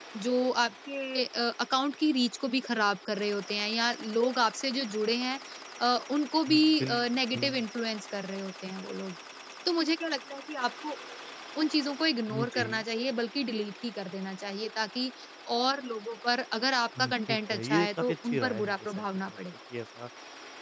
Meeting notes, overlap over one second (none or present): present